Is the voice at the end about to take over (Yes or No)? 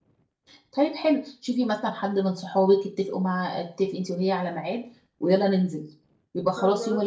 No